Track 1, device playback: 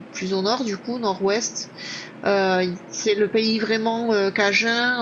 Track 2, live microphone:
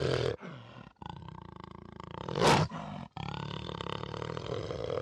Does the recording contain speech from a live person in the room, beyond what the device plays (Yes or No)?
No